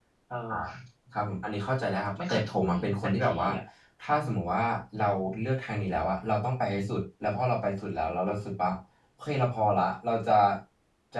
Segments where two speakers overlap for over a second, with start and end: 2.3-3.5

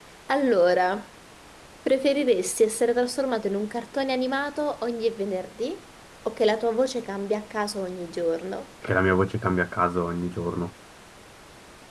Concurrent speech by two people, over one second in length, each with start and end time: none

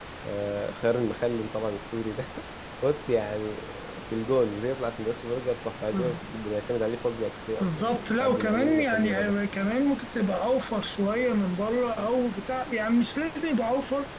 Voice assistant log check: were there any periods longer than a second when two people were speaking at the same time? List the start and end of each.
7.6-9.1

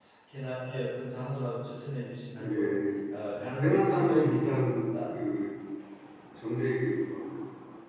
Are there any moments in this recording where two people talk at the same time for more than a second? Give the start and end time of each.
3.6-5.2

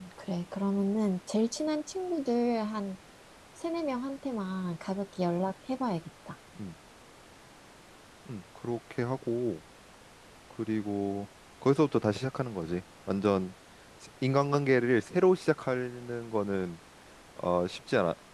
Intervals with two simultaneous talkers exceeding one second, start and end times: none

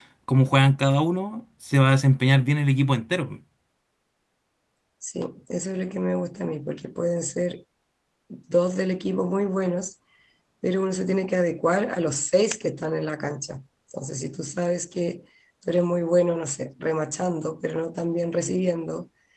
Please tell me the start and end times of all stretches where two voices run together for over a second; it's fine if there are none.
none

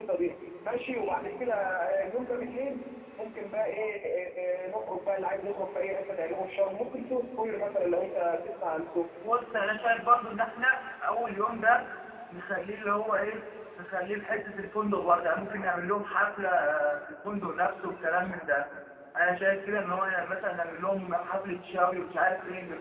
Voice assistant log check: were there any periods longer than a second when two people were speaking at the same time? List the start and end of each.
none

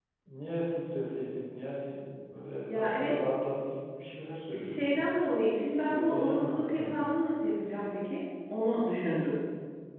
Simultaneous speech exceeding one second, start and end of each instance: 5.7-7.2

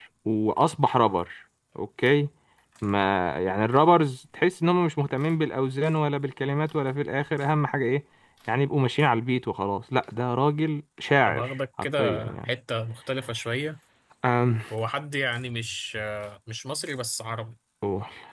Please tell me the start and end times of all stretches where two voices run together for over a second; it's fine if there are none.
11.3-12.5

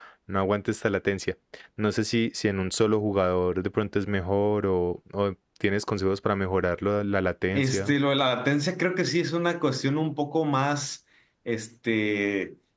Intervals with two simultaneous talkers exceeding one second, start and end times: none

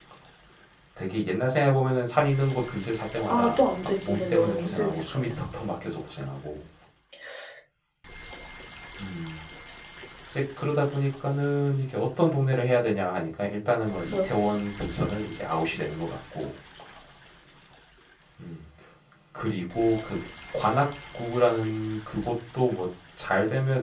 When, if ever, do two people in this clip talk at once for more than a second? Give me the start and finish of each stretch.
3.3-5.4

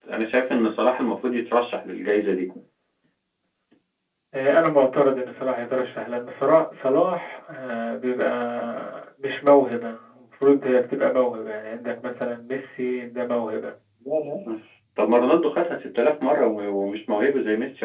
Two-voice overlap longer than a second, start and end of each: none

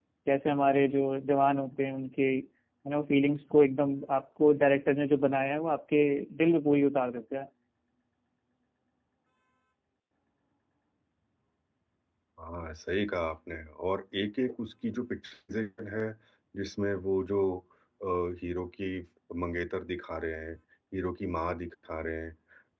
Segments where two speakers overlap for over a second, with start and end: none

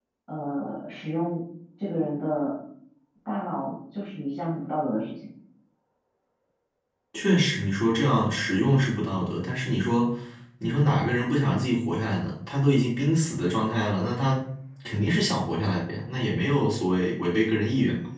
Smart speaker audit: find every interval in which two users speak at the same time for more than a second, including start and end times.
none

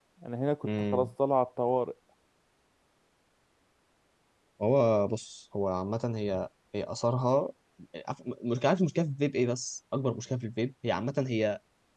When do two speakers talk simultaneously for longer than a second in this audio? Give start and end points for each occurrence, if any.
none

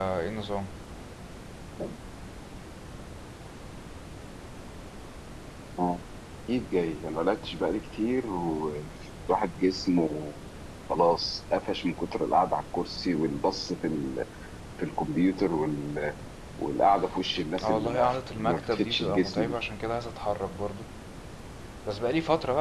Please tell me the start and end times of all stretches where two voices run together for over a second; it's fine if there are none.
17.6-19.6

